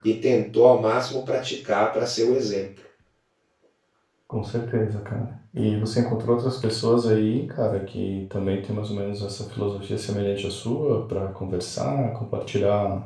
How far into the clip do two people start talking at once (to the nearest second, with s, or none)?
none